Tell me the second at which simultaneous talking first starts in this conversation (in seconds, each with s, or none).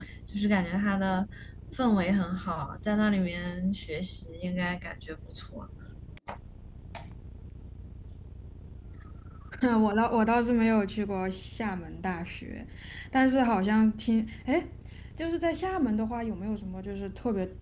none